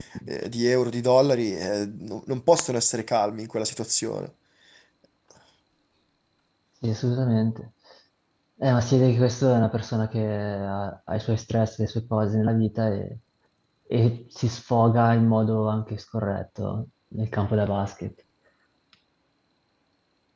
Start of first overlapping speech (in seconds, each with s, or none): none